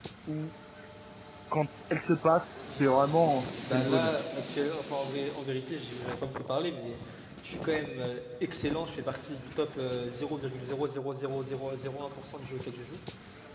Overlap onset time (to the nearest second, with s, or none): 3 s